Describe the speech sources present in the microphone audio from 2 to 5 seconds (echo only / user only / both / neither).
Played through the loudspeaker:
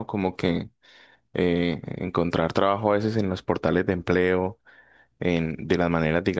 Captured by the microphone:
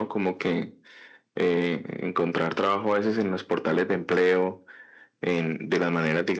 echo only